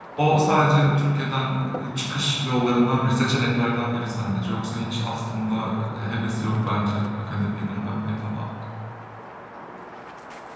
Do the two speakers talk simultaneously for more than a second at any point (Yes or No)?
No